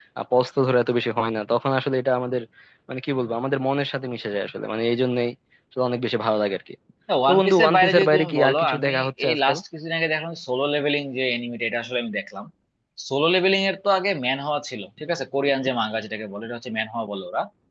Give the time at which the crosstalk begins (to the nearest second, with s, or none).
7 s